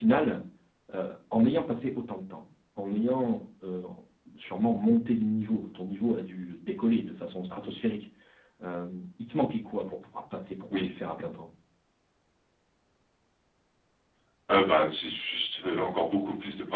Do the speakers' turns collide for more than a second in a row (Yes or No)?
No